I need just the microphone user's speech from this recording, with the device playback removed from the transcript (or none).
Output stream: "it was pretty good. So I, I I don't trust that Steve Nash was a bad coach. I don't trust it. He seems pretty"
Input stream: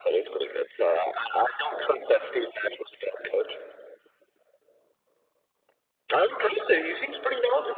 none